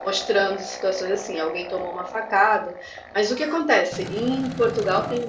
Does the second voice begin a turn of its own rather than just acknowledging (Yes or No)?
No